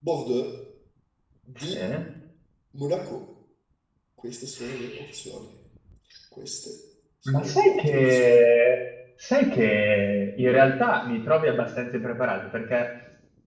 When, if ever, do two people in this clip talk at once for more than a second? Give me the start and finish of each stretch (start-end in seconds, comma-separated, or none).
7.2-8.4